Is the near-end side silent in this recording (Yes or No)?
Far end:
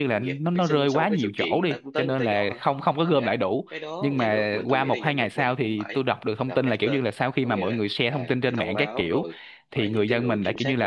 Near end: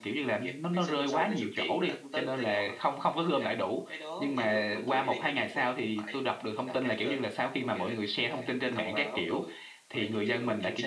Yes